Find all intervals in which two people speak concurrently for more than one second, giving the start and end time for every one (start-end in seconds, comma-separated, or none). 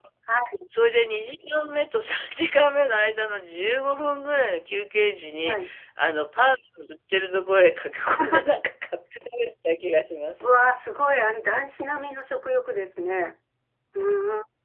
none